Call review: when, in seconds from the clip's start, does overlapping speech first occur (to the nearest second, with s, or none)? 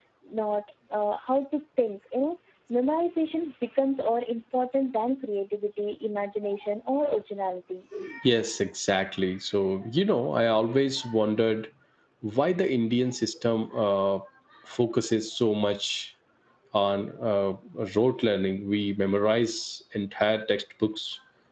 none